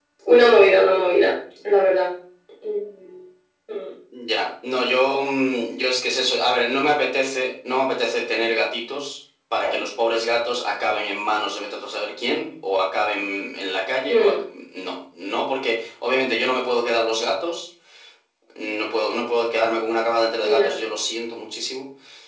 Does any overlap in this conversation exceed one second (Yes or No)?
No